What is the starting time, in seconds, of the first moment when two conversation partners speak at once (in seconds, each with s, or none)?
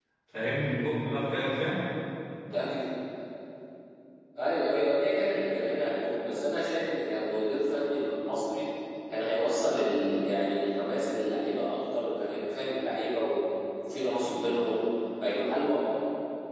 none